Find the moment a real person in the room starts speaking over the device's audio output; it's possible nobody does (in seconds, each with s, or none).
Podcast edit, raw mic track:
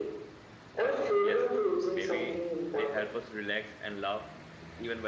1.2 s